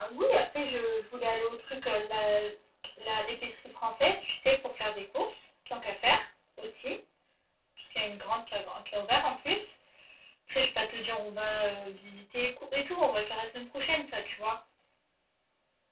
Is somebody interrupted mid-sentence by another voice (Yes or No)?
No